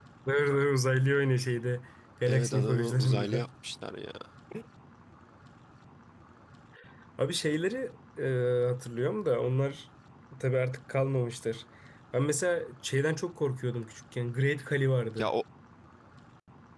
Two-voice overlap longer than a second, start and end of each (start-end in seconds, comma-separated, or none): 2.3-3.5